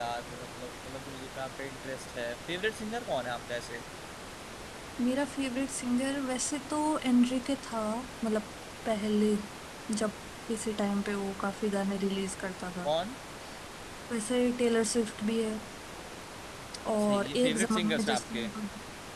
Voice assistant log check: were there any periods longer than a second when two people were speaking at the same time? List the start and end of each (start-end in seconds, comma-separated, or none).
16.9-18.5